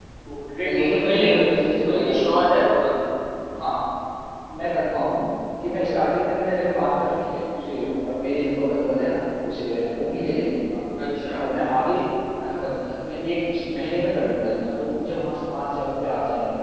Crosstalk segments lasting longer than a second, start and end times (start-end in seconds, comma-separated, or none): 0.6-2.5